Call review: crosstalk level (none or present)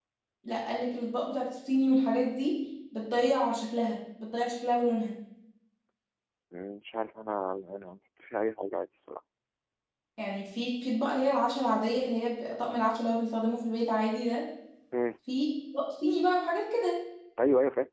none